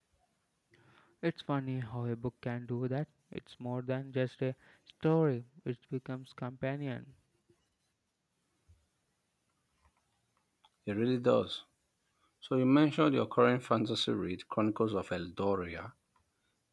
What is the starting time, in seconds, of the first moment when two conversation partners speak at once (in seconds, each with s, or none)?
none